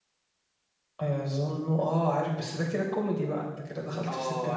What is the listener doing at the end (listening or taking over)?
taking over